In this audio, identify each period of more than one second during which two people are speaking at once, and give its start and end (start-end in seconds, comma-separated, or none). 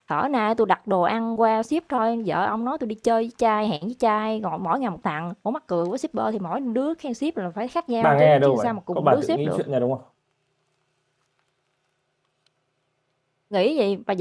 8.0-9.6